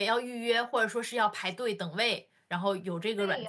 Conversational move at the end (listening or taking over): taking over